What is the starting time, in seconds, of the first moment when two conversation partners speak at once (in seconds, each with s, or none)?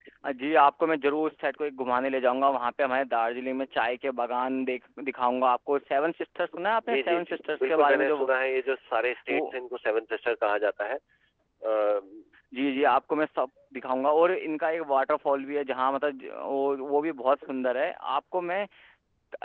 6.8 s